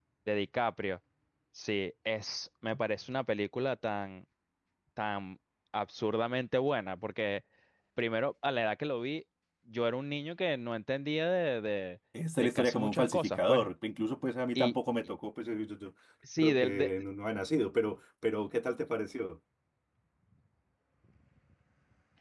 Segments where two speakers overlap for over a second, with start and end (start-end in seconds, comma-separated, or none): 12.4-13.7